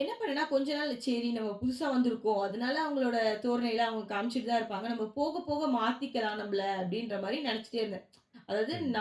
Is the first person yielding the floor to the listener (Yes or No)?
No